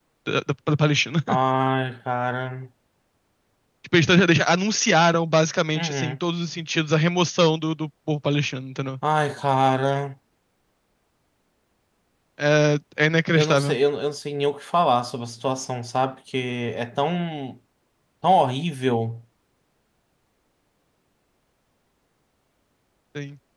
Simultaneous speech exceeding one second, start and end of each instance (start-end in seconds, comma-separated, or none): none